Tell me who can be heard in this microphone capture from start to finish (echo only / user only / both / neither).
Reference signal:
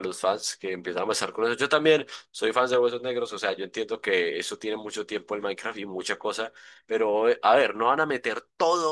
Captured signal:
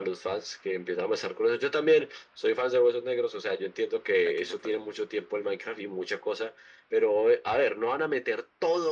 both